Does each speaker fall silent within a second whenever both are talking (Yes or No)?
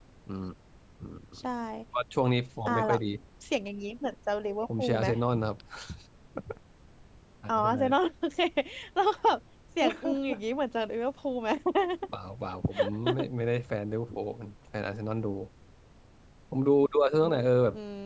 Yes